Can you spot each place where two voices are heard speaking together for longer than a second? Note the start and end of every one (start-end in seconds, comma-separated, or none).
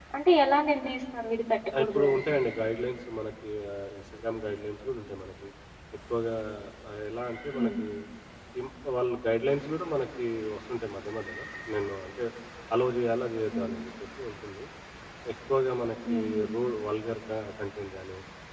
none